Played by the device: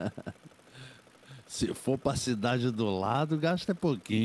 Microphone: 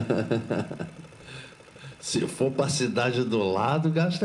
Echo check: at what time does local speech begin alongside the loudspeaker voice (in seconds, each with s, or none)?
none